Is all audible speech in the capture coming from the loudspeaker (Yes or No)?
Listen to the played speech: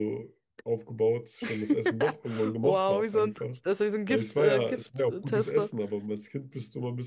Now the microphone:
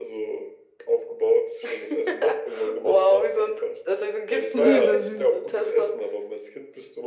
No